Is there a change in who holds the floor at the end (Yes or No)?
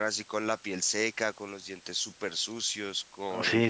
Yes